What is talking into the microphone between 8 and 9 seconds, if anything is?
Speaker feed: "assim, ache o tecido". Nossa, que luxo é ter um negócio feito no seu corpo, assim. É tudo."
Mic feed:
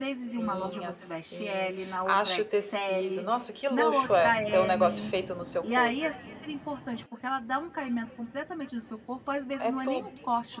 user only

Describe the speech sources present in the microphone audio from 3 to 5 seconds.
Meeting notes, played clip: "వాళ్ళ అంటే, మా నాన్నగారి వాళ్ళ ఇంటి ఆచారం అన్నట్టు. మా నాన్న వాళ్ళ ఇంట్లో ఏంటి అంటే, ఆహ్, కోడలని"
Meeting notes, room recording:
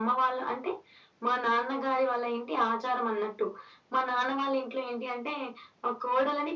echo only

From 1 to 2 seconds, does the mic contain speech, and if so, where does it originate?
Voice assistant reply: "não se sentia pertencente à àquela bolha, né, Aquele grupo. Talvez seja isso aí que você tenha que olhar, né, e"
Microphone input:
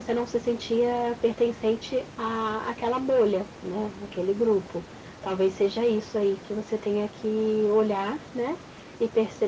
echo only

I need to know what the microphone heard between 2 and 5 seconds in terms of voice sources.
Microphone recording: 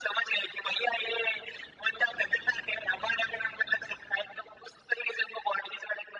echo only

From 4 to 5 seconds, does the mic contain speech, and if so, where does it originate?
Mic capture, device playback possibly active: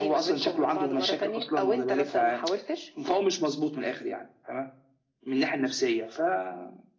echo only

